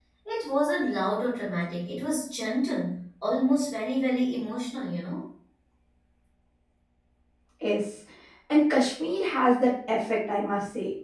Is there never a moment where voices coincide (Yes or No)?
Yes